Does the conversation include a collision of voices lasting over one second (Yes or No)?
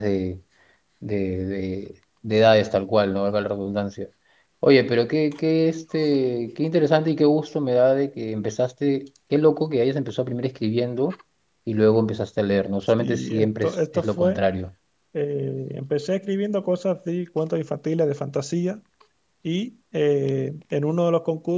Yes